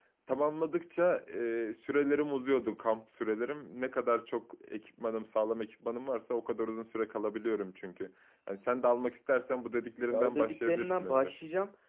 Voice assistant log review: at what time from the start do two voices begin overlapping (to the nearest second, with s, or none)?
10 s